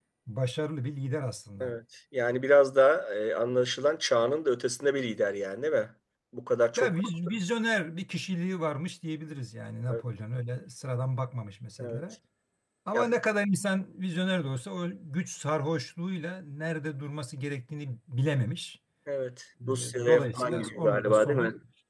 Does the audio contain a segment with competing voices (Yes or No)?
Yes